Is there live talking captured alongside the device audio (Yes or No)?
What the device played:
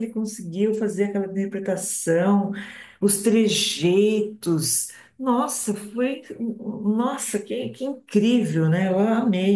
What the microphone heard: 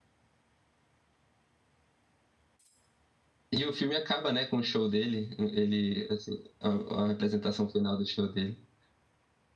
Yes